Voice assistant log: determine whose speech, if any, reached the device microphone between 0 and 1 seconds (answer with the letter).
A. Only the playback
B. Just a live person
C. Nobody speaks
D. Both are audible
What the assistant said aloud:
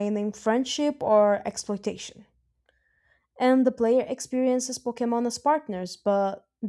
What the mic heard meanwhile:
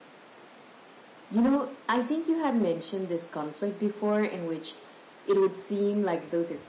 C